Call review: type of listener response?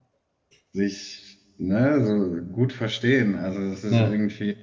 listening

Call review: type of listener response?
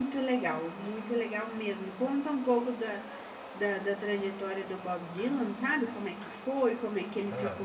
listening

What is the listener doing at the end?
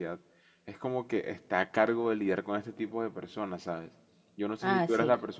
listening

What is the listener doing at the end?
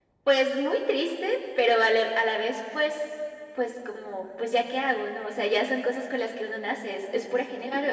taking over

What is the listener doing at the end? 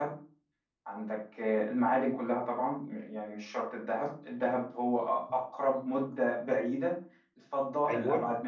listening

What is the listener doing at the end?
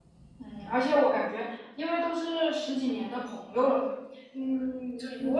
listening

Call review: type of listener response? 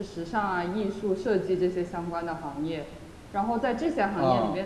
listening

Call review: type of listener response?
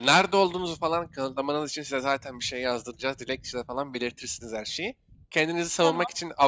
listening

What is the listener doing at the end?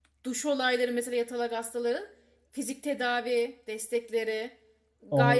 taking over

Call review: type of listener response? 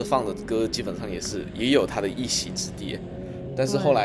listening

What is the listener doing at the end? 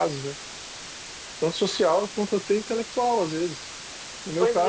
listening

